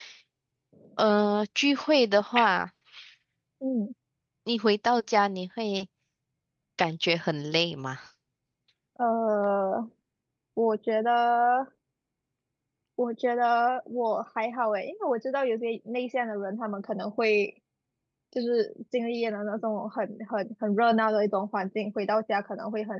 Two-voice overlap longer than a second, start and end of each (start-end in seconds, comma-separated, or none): none